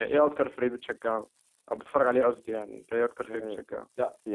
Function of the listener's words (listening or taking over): taking over